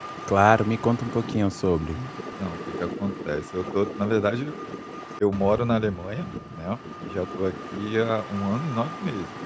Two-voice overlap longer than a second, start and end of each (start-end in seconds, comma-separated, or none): none